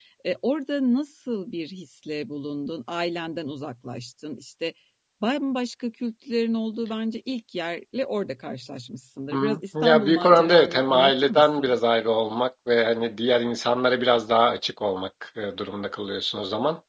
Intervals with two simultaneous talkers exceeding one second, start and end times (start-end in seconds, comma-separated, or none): 9.3-11.7